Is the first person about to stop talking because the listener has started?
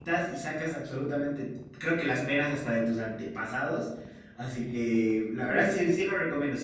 No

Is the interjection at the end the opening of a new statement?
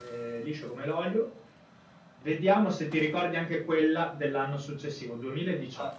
Yes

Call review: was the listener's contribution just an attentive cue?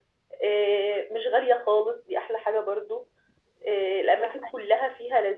Yes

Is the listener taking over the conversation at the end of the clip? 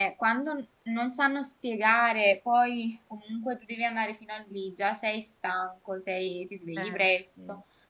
No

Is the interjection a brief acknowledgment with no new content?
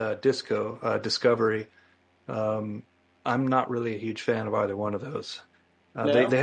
Yes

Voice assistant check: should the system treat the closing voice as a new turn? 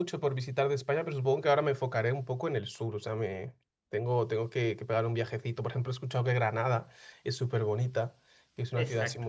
No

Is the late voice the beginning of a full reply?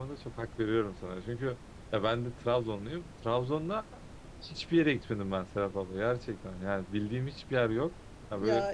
No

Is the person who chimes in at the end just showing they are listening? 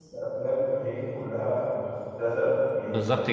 Yes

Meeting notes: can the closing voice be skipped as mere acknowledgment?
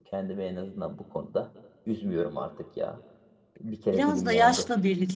No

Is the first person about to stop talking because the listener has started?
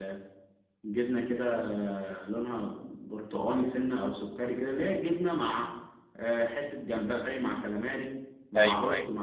No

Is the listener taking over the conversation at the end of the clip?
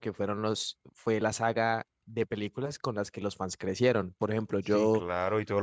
Yes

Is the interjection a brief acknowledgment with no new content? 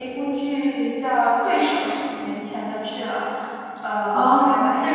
No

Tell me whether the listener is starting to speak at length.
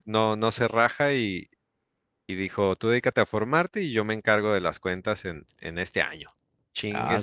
Yes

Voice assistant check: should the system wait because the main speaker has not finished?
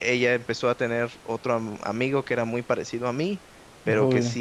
Yes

